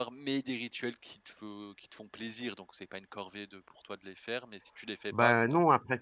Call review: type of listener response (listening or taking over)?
taking over